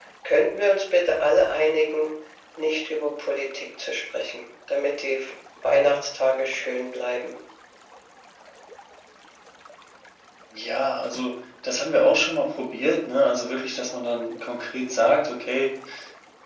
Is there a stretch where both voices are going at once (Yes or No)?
No